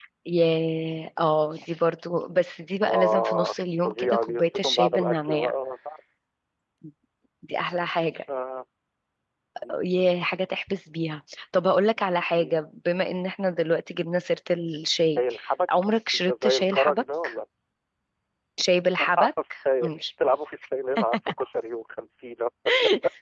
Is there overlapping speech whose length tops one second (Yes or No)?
Yes